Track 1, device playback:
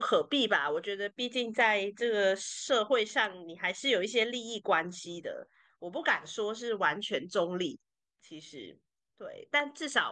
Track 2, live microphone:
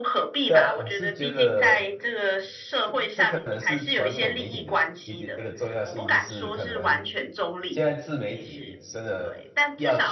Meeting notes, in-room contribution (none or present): present